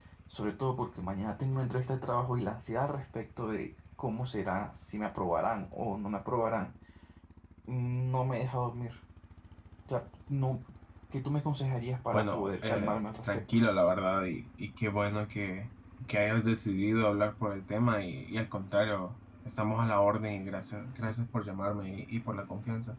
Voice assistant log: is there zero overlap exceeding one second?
No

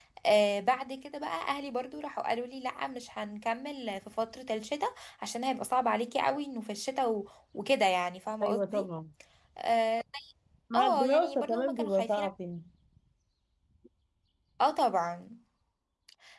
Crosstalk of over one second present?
Yes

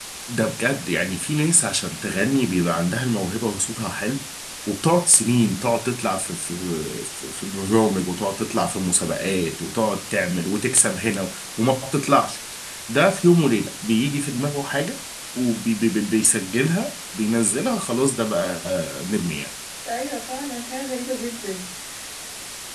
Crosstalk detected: No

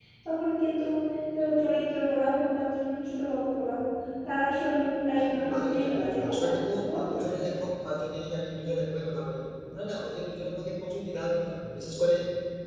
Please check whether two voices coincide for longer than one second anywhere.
Yes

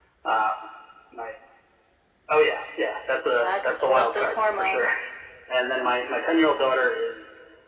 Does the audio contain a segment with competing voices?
Yes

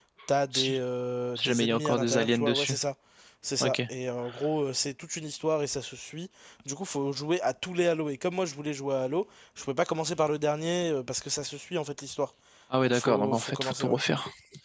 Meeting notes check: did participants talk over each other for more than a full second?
Yes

